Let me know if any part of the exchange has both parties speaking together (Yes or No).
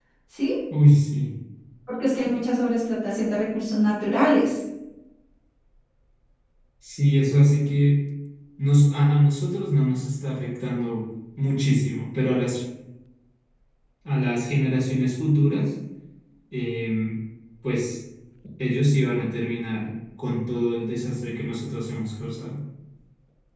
No